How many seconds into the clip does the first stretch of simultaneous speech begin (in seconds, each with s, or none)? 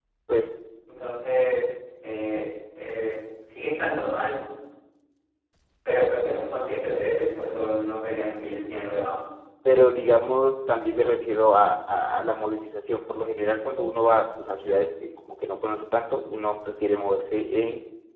none